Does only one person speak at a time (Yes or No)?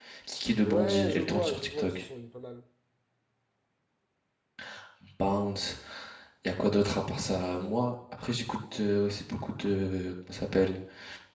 No